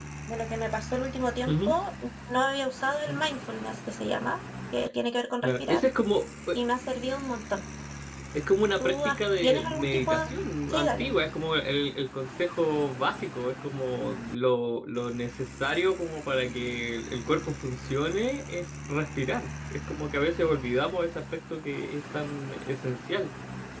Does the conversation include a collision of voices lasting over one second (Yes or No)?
Yes